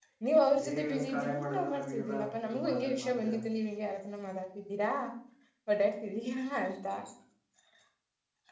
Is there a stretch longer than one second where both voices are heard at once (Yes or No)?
Yes